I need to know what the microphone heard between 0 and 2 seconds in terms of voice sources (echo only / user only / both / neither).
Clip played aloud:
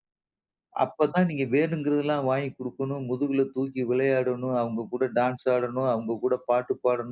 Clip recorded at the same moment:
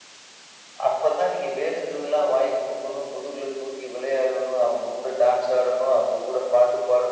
echo only